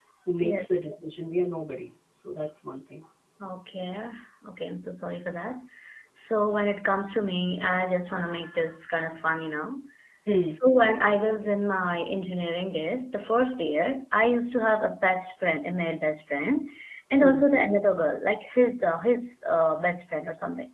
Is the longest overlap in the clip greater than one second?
No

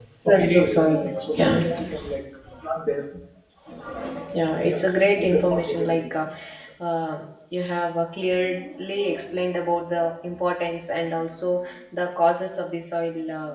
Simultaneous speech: Yes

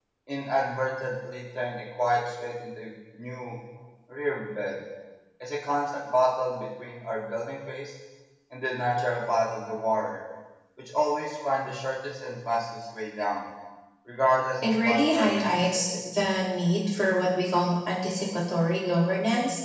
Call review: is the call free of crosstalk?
No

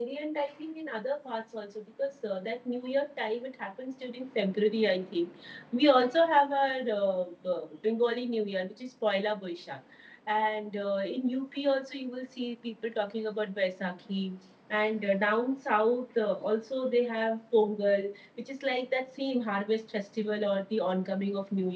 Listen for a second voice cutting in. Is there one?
No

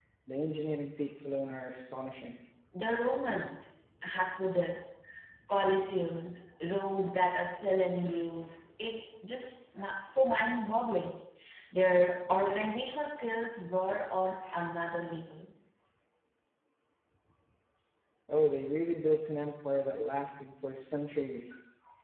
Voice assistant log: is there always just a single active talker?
Yes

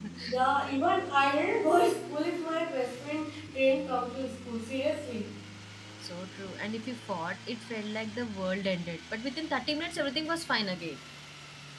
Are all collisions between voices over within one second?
Yes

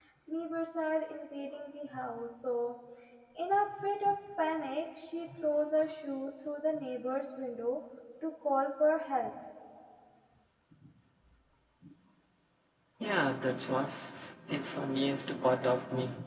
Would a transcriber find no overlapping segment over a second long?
Yes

